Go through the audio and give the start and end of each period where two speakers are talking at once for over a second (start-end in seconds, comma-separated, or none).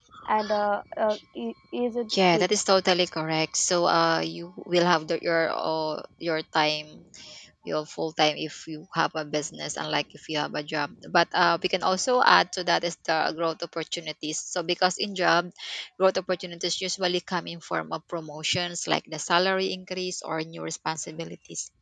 none